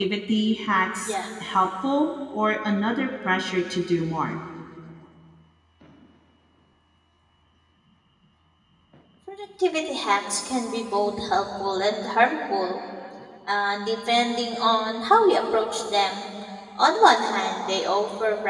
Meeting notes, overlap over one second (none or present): none